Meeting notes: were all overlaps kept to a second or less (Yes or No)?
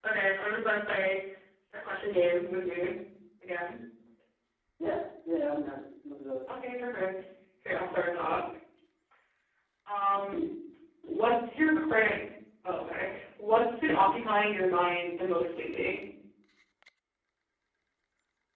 Yes